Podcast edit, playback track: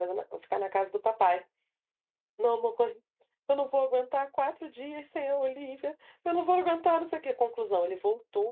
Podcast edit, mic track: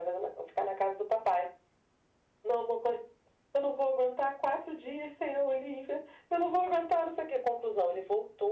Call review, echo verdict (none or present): present